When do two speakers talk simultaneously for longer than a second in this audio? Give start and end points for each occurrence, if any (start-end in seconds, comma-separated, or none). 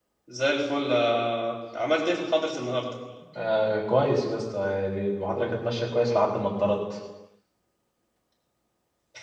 none